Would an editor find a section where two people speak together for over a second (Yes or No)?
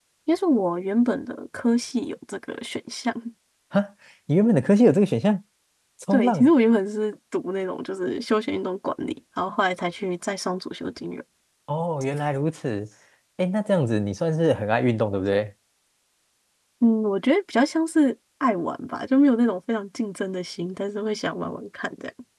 No